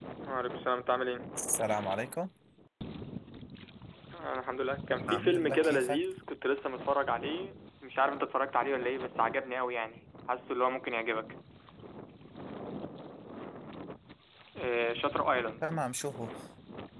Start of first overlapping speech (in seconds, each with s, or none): 4.9 s